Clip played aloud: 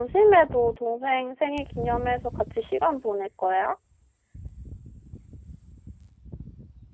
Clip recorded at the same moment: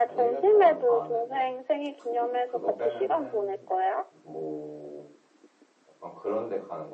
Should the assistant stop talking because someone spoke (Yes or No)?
Yes